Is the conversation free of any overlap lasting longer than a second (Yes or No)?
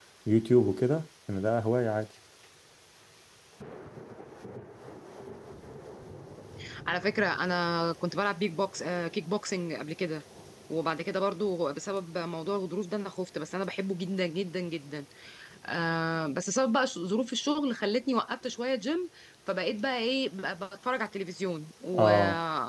Yes